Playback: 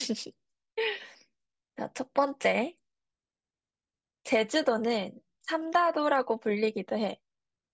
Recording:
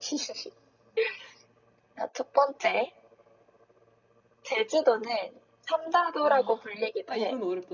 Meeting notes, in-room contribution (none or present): present